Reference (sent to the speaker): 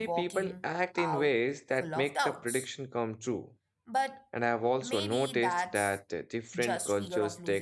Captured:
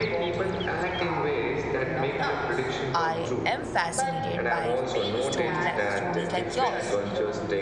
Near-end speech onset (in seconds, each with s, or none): 2.9 s